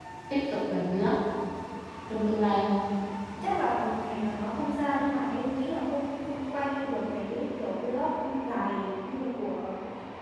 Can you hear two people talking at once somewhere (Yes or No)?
No